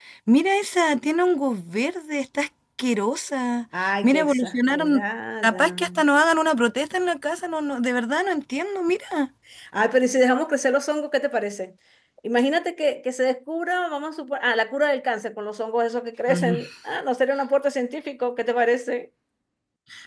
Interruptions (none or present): present